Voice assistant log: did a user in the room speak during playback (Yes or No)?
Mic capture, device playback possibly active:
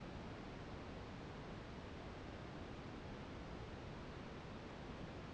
No